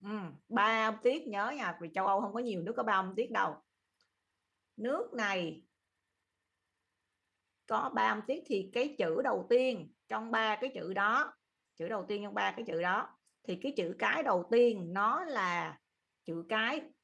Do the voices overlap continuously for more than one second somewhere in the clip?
No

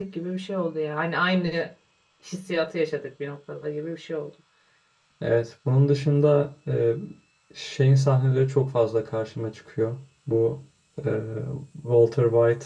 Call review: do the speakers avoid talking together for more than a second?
Yes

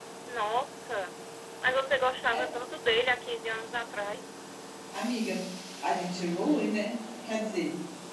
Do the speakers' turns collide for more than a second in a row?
No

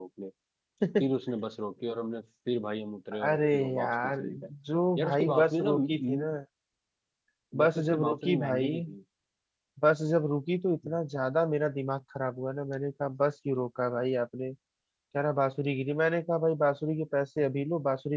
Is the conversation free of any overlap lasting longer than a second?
No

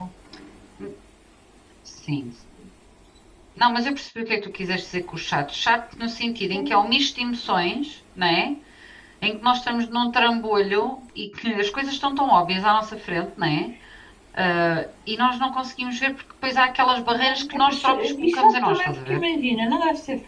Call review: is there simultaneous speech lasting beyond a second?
Yes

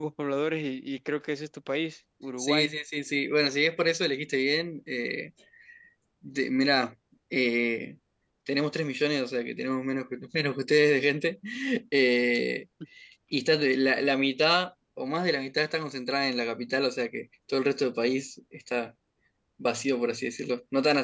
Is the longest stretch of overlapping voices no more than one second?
Yes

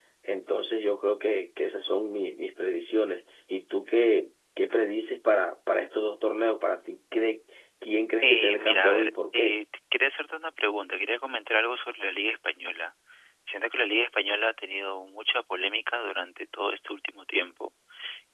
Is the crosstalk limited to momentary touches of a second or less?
No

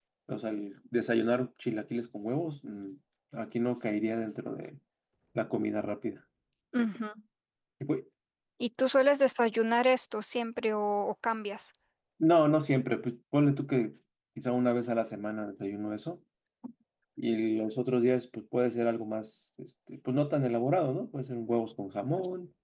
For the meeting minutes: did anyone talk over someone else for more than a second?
No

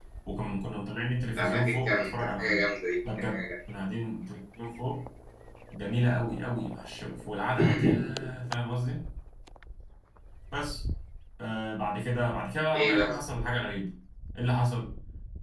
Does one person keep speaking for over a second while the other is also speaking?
Yes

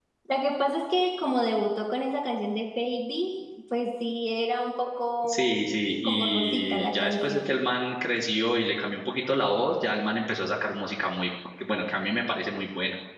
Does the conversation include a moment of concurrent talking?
Yes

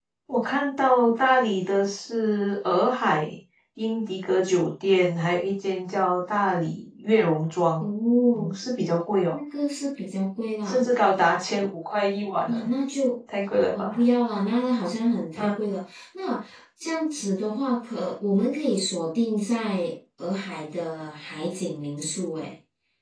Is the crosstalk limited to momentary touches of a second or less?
Yes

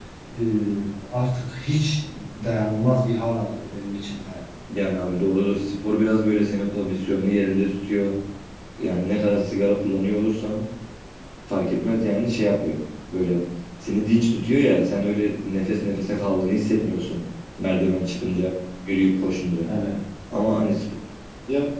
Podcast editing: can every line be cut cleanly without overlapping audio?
Yes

